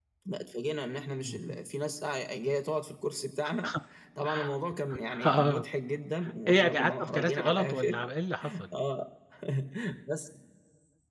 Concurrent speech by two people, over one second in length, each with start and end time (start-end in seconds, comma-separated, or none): 6.5-8.0